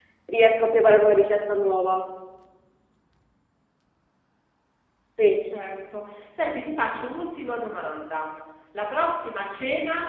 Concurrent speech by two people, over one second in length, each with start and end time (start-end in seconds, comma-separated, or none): none